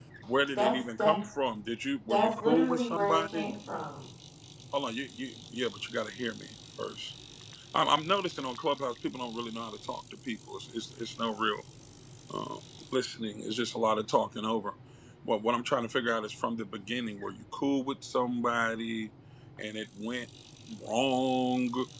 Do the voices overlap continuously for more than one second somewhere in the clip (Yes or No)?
Yes